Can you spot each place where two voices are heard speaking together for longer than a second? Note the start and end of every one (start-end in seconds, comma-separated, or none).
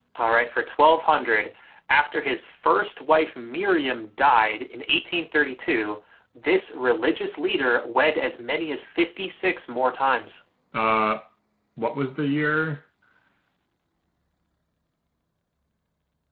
none